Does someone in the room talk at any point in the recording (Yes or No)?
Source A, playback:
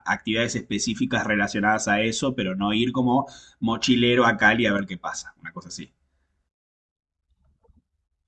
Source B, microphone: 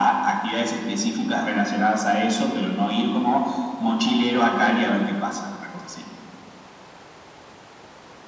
No